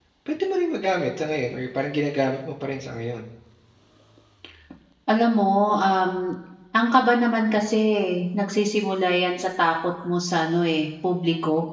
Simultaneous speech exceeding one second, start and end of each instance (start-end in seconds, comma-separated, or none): none